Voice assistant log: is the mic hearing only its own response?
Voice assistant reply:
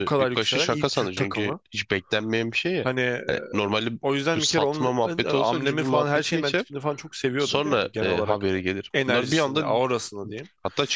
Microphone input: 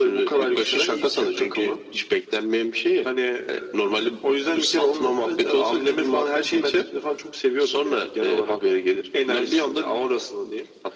Yes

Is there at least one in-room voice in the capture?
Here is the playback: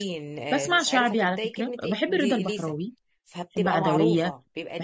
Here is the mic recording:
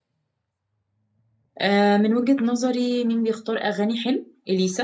Yes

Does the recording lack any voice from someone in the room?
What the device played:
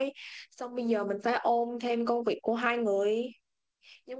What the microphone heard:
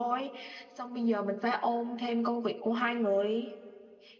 Yes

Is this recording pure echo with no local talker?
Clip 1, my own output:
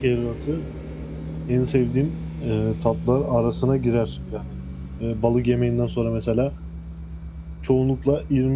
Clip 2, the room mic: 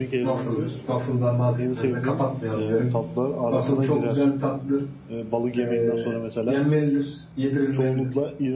No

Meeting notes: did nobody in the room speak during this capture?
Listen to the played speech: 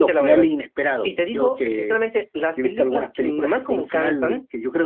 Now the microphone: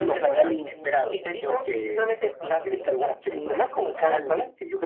No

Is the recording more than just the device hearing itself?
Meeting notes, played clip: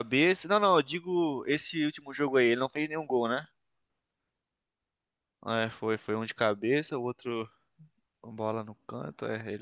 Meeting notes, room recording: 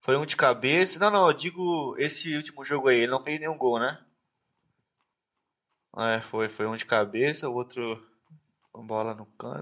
No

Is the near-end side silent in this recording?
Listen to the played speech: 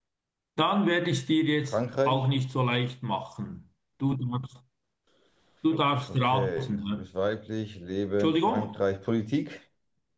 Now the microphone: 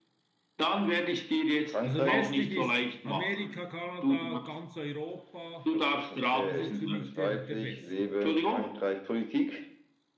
No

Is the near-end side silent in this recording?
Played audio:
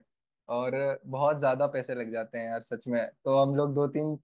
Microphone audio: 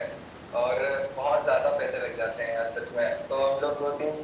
Yes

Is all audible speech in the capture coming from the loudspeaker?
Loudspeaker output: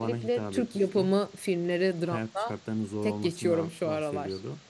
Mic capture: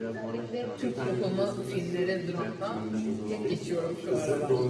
No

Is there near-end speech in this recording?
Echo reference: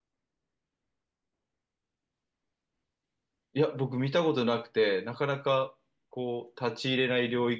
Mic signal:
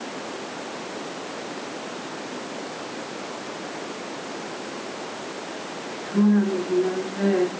Yes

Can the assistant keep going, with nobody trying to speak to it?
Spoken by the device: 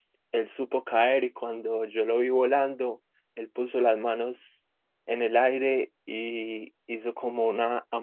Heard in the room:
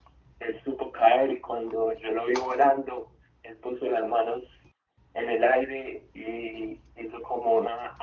Yes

